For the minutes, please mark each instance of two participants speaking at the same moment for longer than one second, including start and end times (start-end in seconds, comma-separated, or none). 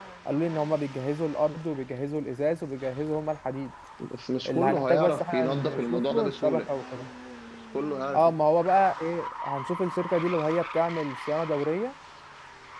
4.5-6.7